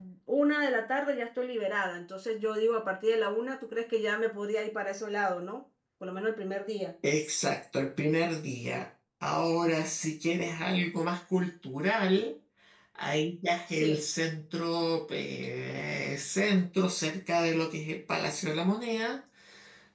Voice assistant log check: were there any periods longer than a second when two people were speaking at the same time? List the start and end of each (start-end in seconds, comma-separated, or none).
none